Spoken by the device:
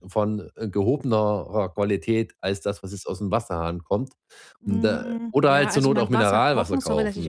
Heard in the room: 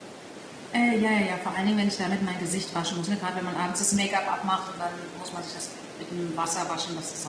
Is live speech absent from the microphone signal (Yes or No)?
No